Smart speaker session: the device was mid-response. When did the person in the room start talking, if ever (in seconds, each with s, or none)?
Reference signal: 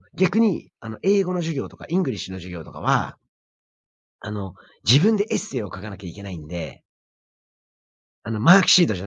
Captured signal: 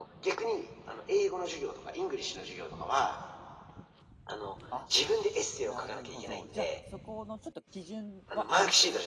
4.7 s